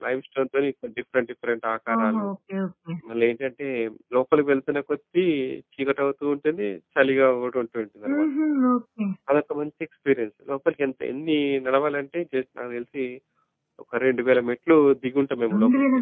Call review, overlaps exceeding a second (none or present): none